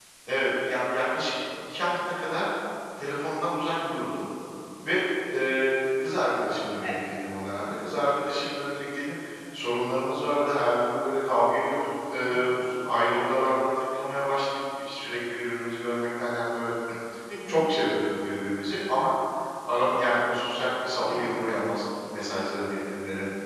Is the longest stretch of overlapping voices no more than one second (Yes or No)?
Yes